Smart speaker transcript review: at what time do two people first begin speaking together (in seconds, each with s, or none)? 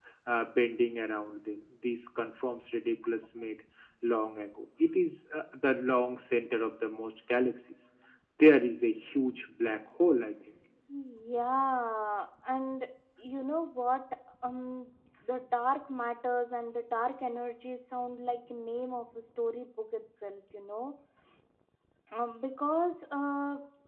none